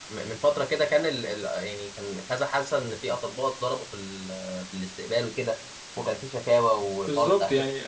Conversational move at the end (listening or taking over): taking over